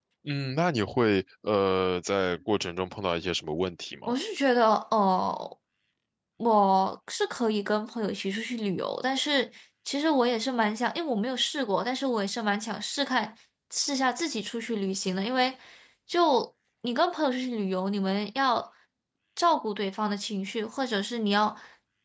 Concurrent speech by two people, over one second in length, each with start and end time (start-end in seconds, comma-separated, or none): none